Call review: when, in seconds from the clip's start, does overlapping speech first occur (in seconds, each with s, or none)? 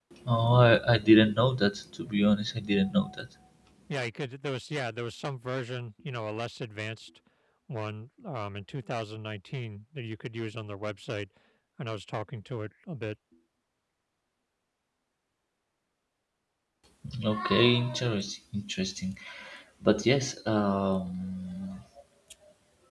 none